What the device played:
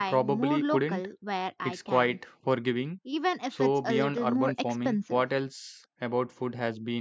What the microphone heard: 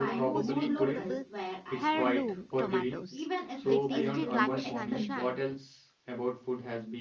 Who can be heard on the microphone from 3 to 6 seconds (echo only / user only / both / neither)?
both